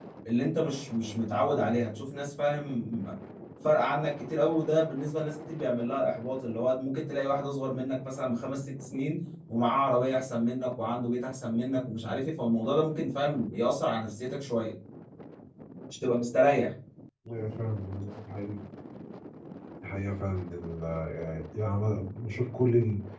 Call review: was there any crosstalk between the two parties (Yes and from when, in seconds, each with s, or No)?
No